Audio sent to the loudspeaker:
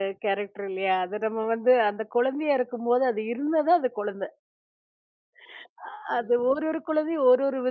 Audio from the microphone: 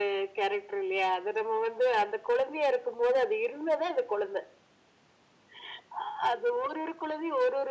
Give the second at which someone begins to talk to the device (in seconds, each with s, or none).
none